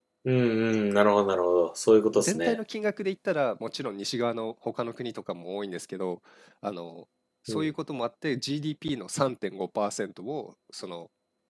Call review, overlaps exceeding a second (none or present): none